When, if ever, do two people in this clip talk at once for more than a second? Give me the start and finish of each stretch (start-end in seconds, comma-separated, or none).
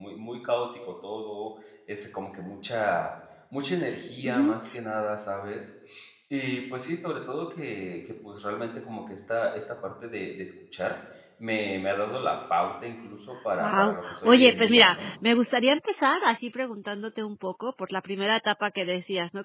13.6-15.1